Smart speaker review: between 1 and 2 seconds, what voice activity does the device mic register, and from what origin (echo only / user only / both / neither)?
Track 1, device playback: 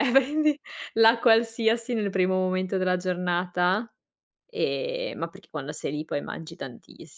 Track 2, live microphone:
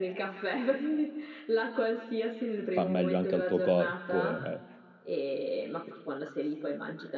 echo only